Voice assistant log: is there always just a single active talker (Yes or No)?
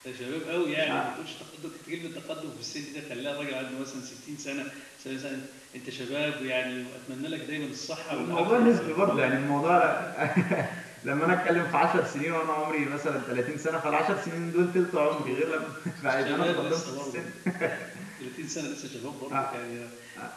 No